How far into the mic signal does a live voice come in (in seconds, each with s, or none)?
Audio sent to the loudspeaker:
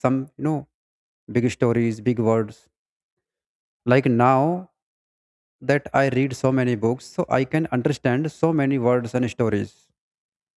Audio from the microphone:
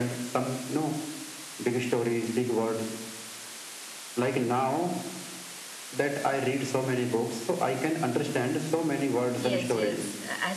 9.4 s